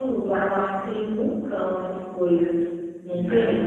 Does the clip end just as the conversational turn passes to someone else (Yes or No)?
Yes